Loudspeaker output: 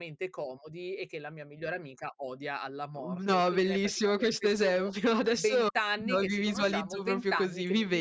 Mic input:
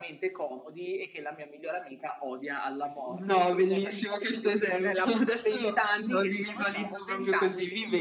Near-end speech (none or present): present